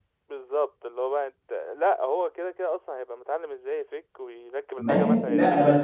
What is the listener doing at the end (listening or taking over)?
taking over